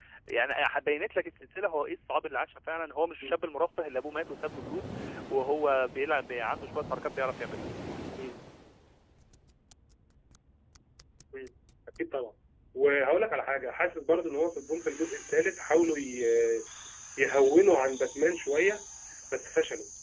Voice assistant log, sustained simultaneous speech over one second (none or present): none